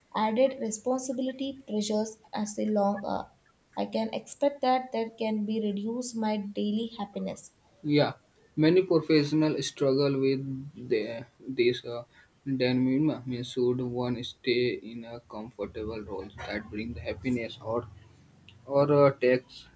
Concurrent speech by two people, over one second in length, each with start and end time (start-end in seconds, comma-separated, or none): none